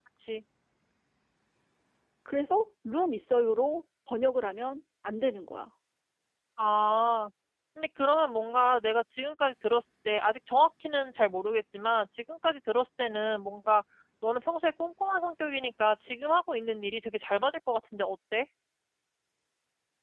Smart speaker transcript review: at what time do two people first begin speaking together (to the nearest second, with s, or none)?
none